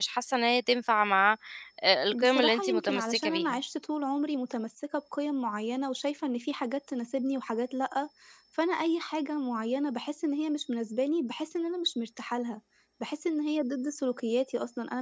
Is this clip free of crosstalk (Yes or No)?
No